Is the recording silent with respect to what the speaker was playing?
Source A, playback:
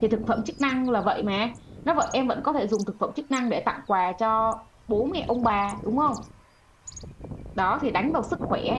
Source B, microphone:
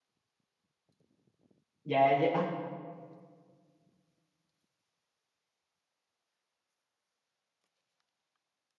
Yes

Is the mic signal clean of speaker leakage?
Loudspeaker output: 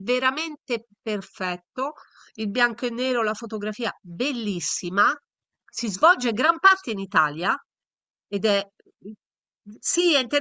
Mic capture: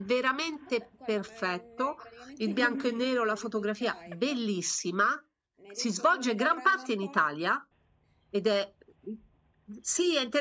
No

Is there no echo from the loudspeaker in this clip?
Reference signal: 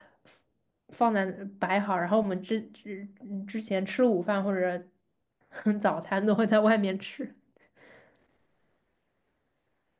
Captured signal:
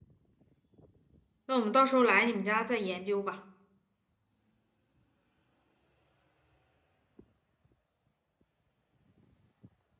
Yes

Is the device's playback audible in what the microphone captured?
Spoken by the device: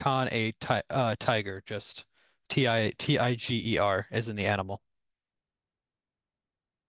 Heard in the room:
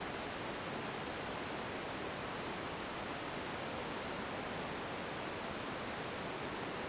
No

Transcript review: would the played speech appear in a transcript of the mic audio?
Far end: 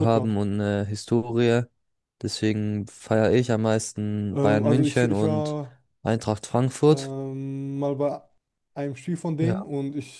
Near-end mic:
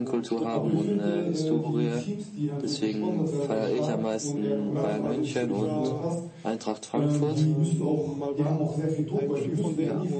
Yes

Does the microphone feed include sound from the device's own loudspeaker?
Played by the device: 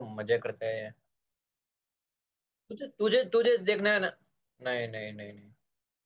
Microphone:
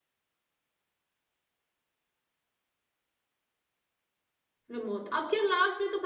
No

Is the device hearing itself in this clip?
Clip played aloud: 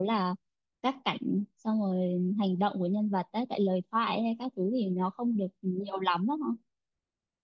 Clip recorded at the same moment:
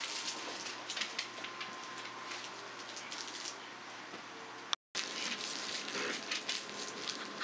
No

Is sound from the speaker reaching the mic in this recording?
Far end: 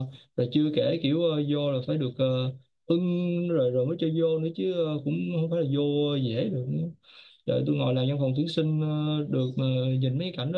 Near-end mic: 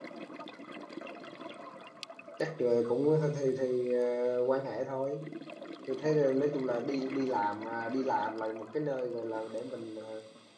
No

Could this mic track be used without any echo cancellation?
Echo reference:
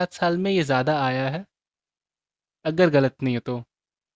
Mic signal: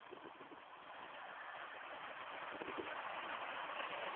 Yes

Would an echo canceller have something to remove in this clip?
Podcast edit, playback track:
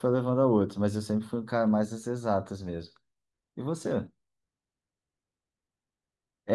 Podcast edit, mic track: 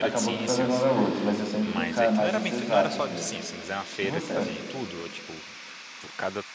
Yes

